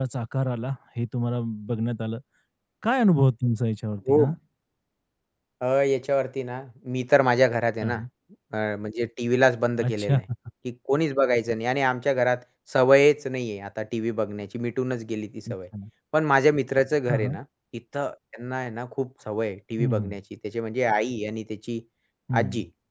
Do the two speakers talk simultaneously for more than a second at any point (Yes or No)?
No